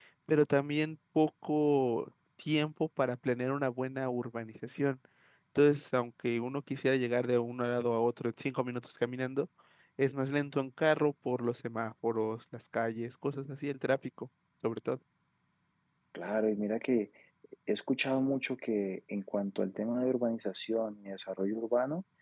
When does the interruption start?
none

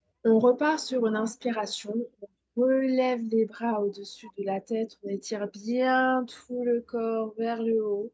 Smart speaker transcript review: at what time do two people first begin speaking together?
none

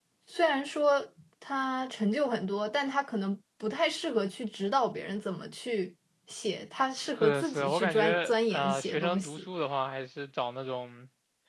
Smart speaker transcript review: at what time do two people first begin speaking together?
7 s

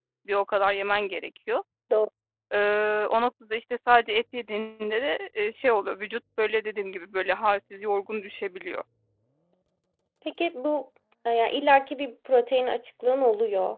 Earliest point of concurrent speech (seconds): none

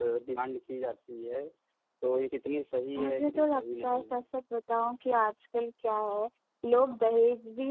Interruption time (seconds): 3 s

